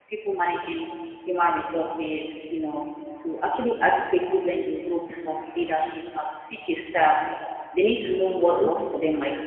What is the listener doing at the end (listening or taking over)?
listening